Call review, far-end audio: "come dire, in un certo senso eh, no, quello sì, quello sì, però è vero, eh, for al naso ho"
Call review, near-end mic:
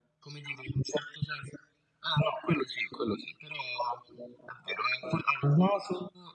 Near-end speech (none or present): none